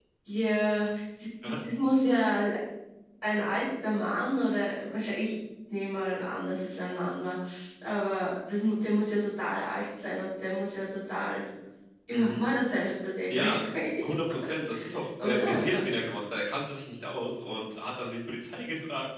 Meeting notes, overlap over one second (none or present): none